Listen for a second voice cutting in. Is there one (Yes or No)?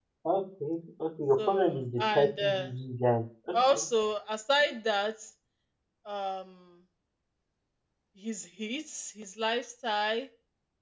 Yes